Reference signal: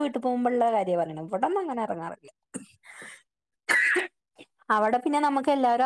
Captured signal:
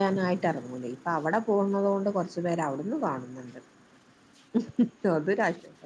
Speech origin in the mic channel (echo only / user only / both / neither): user only